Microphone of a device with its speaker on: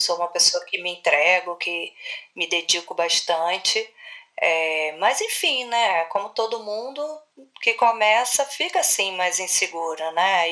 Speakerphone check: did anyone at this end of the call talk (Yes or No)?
No